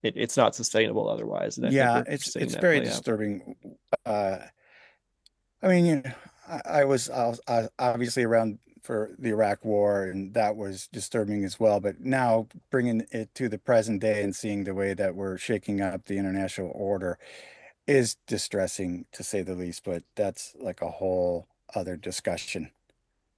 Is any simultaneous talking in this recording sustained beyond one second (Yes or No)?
Yes